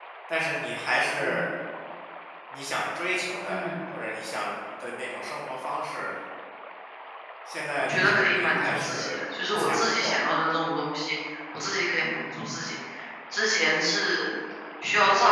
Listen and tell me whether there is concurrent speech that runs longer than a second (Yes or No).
Yes